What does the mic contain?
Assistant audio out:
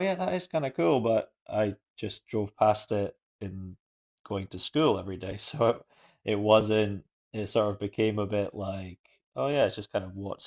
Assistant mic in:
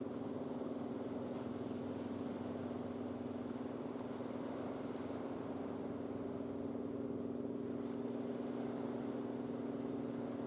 neither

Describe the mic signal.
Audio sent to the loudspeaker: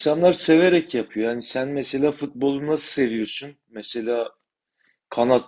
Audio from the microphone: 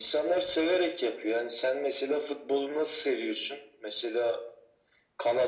echo only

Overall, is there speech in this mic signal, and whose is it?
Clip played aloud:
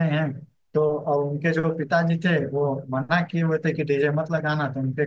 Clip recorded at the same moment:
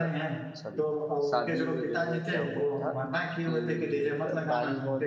both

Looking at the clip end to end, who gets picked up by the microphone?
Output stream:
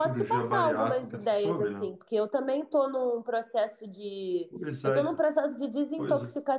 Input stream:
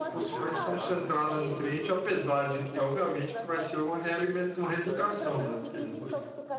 both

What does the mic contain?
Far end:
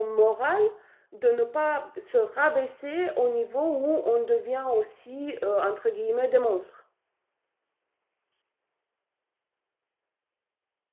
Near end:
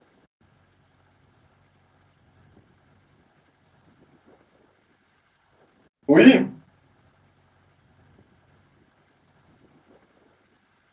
user only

